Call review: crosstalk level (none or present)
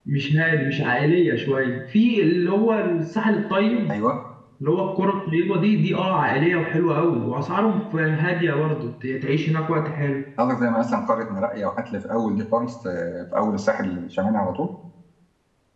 none